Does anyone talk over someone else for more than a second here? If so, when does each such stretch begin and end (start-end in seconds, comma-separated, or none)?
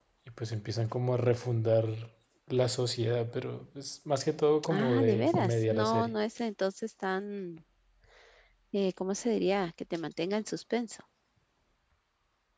4.7-6.2